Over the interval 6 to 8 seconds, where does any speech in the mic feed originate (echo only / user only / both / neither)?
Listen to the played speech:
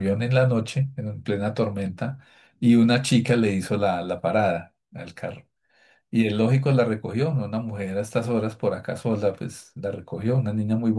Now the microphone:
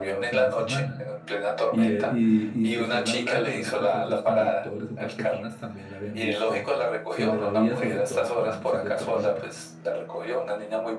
both